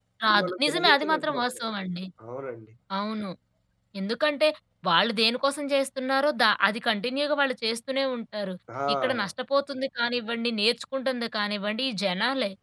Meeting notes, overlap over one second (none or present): present